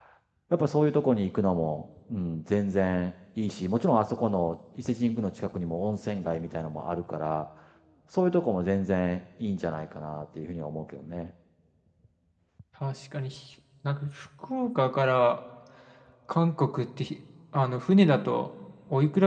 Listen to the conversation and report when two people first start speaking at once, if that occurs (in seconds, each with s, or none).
none